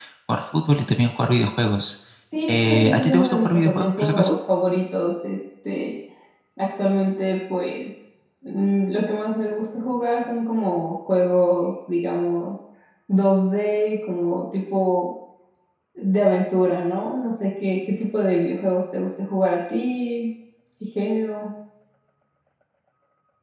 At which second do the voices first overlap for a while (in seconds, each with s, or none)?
2.5 s